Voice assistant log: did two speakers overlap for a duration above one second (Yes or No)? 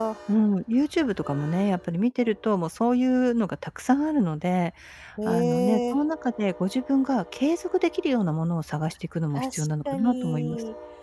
Yes